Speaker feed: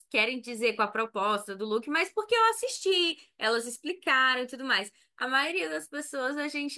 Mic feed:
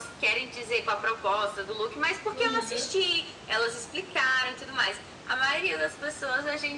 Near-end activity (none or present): present